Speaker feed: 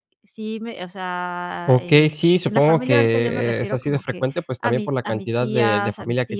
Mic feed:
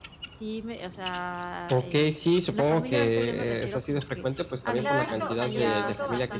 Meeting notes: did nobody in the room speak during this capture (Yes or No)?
No